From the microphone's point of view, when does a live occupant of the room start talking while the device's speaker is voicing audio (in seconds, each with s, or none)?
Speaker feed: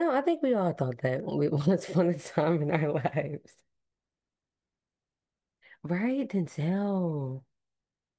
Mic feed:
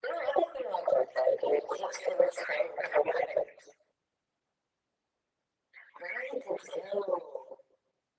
none